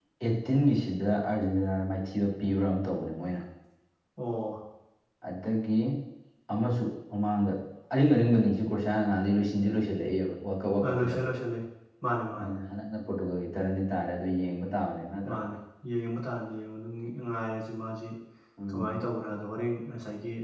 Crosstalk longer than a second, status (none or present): none